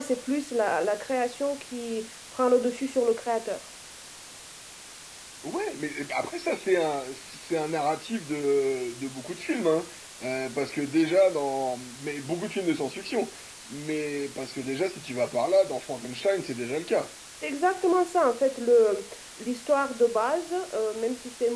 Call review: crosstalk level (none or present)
none